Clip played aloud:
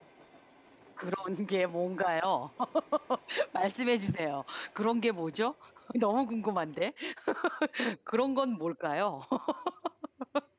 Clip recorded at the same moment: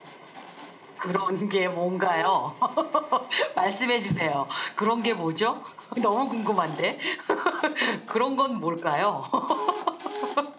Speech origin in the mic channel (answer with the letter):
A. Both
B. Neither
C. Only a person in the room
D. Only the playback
D